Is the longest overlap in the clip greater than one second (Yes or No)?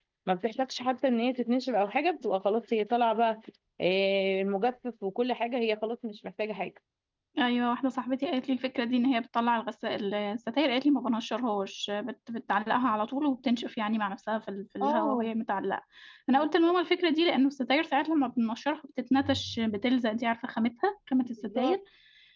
No